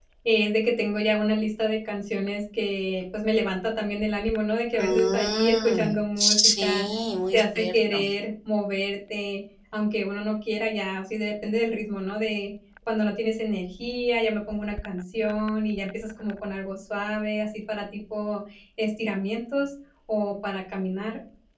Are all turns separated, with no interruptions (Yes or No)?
No